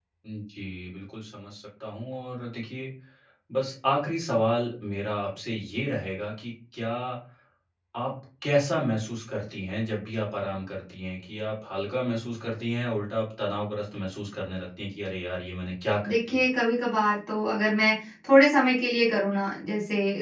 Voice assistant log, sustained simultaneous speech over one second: none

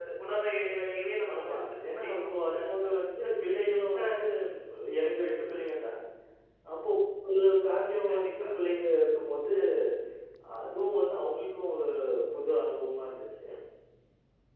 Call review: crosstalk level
present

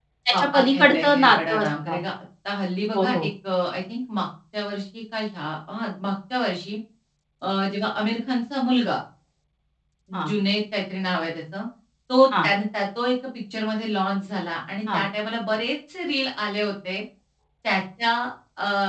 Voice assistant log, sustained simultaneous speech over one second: present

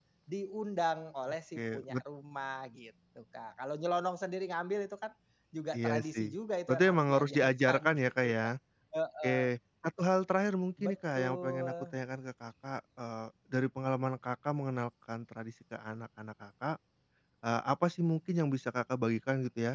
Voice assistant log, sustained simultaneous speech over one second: present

